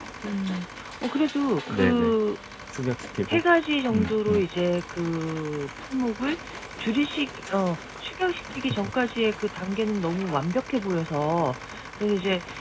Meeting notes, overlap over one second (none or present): none